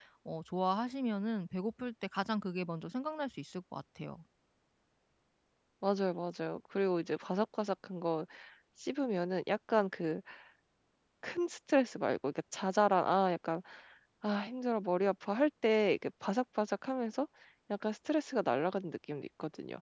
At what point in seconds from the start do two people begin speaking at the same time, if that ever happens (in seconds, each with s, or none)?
none